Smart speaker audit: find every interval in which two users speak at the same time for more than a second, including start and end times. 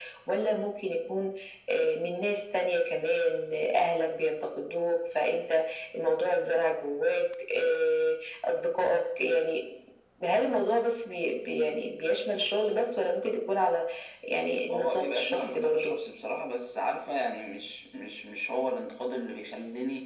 14.7-15.9

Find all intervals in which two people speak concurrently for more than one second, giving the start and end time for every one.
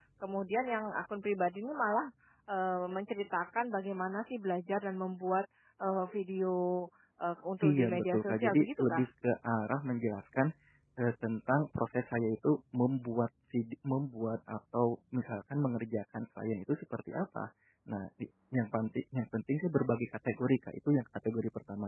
7.6-9.0

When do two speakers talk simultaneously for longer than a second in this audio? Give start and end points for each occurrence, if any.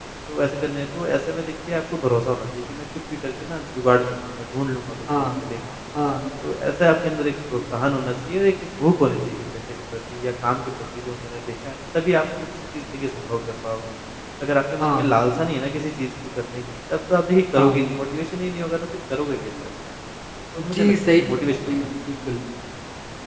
20.6-21.9

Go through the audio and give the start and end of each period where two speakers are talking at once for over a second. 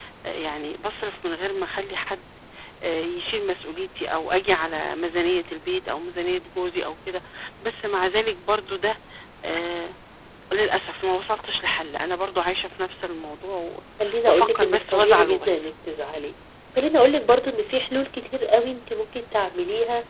14.3-15.7

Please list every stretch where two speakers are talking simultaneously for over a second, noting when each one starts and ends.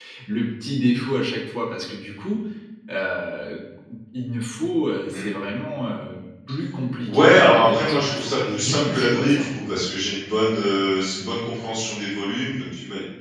7.0-9.7

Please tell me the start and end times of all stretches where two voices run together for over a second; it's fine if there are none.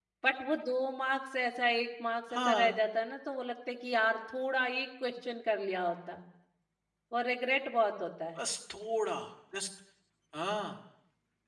none

